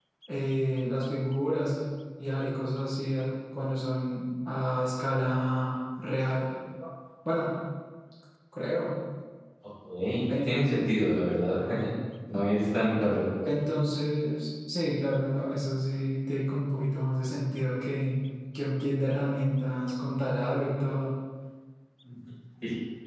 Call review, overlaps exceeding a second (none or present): none